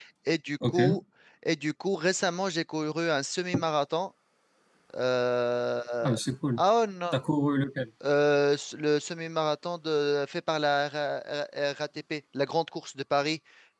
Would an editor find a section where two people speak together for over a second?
No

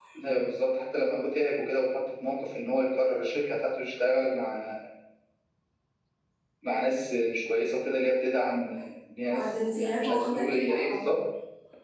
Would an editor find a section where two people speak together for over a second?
Yes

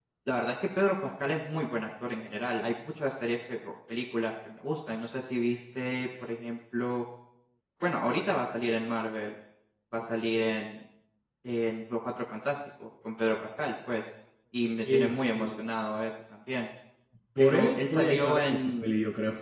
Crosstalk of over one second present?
Yes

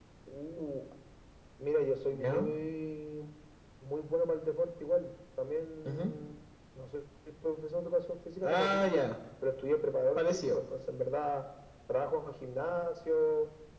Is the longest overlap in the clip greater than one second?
No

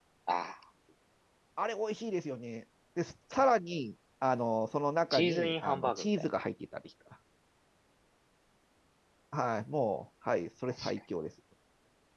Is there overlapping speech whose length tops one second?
Yes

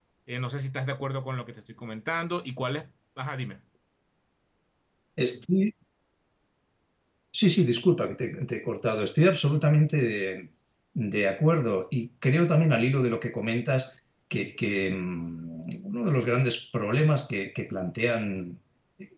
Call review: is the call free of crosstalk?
Yes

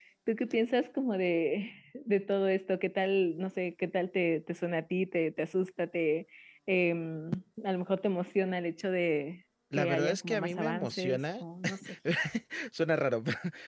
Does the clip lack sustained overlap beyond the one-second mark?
No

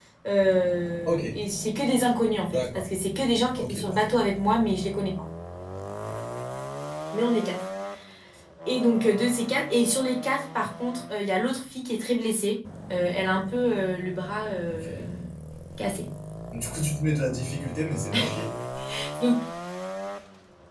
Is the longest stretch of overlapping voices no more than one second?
Yes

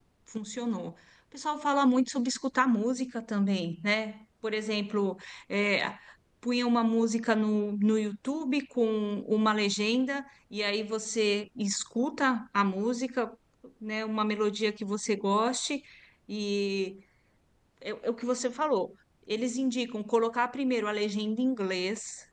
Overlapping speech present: No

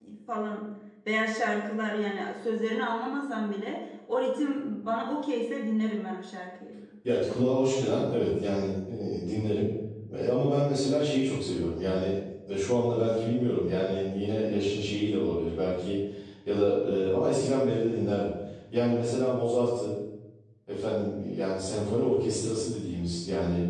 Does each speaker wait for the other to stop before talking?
Yes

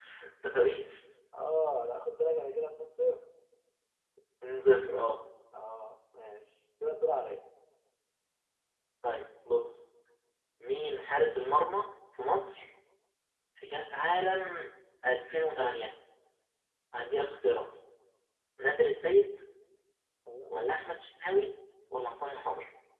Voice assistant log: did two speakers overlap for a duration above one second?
No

